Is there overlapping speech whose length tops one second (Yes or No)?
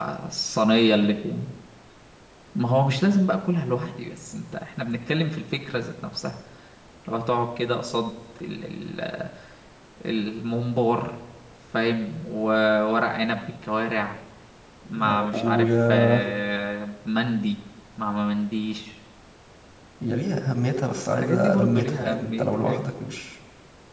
Yes